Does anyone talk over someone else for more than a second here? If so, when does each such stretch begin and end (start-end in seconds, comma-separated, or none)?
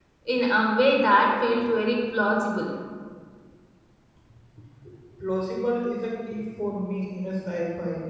none